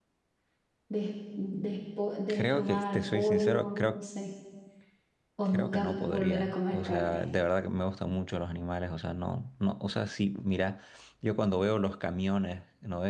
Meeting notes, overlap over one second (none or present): present